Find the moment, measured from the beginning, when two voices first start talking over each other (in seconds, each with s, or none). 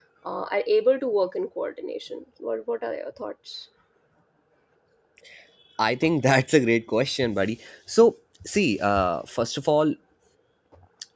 none